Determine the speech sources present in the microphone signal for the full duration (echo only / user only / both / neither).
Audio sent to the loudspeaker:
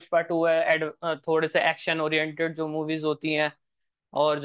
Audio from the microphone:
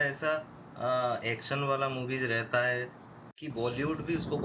user only